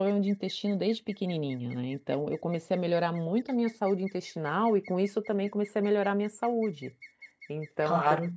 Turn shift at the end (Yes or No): Yes